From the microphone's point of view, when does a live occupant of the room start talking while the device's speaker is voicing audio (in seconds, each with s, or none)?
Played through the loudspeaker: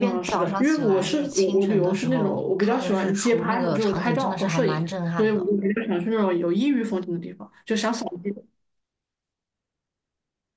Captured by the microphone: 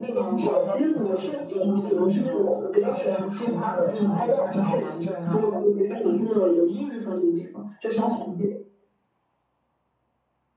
none